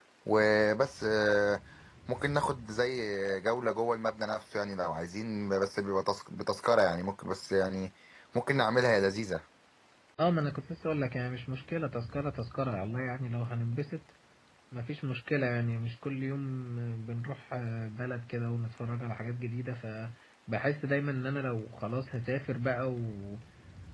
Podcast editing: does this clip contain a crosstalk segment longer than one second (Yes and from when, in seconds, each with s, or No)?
No